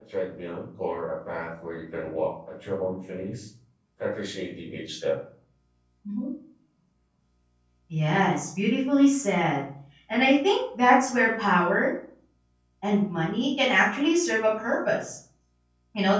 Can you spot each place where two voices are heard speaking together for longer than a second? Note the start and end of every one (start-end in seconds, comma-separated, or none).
none